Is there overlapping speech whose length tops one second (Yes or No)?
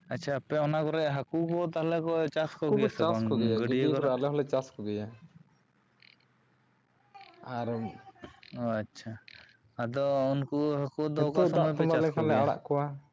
Yes